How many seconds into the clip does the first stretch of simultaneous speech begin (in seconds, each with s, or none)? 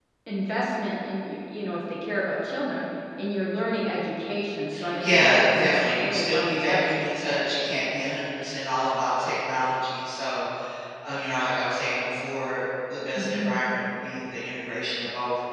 5.0 s